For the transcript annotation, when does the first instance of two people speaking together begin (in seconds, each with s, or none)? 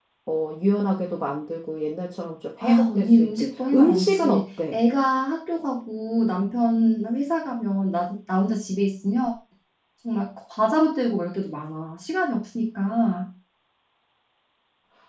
2.6 s